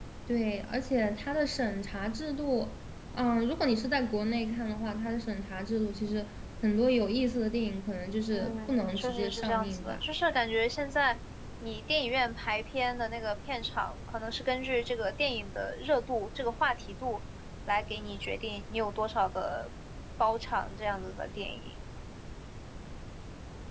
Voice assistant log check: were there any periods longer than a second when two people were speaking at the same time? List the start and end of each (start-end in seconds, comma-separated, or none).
8.3-10.0